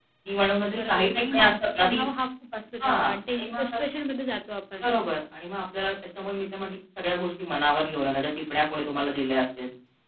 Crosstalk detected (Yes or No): Yes